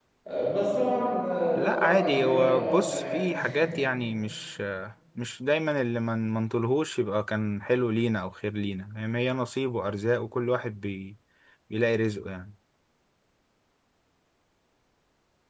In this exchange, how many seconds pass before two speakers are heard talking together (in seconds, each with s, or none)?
1.6 s